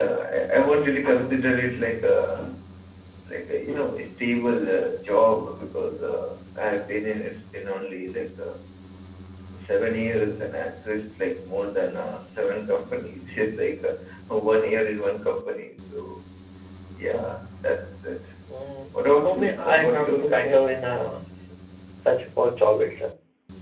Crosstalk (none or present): present